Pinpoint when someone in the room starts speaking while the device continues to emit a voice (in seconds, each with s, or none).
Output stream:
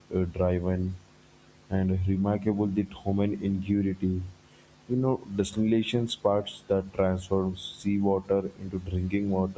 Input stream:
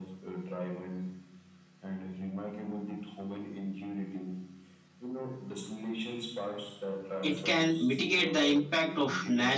7.2 s